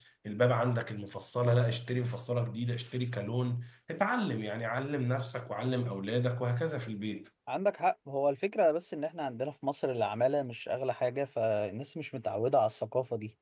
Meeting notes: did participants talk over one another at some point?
No

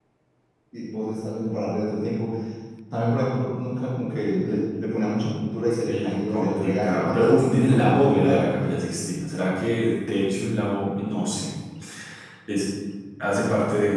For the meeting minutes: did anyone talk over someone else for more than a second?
Yes, from 5.9 s

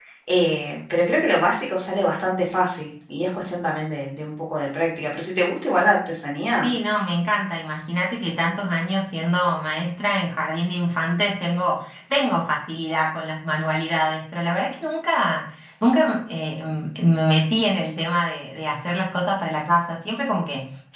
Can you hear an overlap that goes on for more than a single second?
No

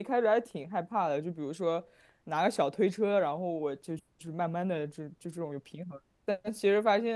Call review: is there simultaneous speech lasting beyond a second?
No

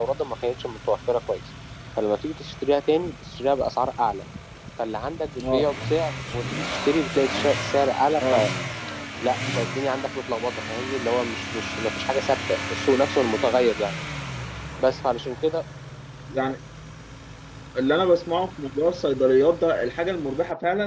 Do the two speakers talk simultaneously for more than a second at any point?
No

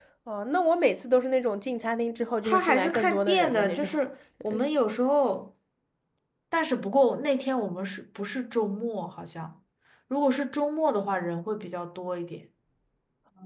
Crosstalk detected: Yes, from 2.4 s

